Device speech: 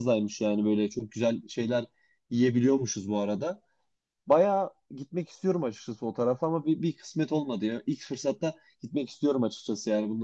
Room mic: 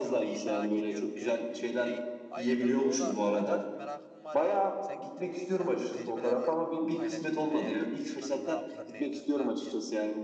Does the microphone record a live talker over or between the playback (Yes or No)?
Yes